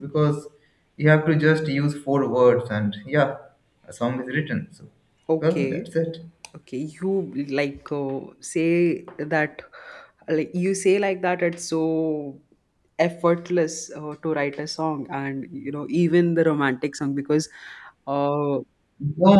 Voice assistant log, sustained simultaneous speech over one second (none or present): none